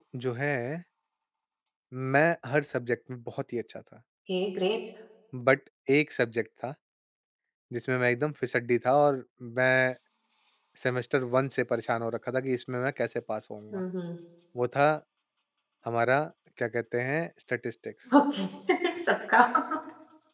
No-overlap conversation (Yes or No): Yes